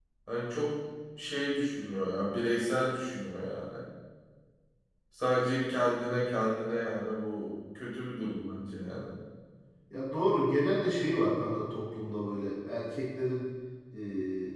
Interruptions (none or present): none